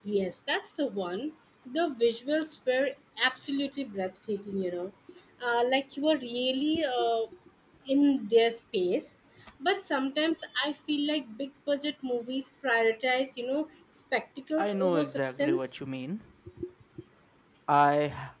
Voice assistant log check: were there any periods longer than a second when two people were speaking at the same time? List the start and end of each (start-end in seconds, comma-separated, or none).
14.6-15.8